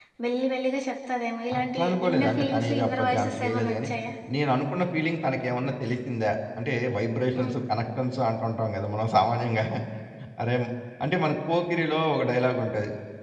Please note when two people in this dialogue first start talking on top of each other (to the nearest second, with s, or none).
2 s